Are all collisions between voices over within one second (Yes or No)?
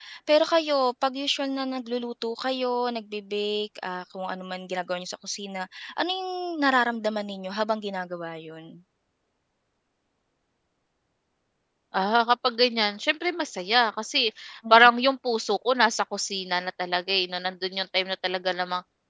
Yes